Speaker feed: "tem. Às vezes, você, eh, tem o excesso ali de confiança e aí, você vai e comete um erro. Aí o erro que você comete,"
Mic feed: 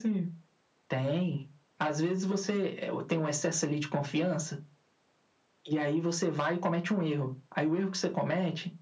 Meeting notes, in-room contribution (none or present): none